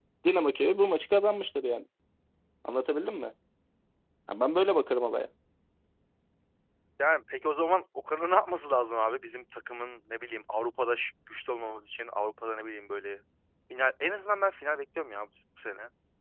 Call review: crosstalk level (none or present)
none